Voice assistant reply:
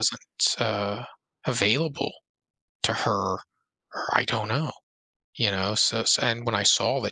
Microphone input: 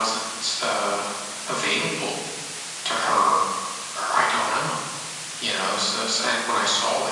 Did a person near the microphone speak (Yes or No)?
No